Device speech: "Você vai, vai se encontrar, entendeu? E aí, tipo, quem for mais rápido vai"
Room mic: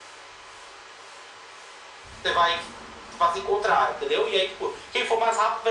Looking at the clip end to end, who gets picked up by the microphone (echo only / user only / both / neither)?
echo only